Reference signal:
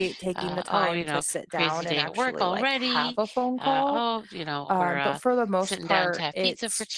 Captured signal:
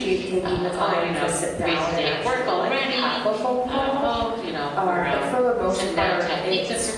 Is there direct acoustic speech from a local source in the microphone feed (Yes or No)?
No